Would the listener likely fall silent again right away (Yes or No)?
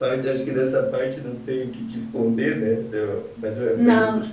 Yes